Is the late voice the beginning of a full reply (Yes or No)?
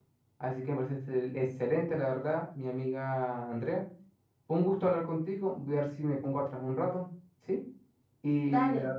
No